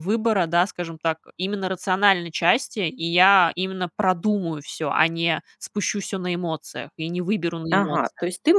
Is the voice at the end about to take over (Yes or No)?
Yes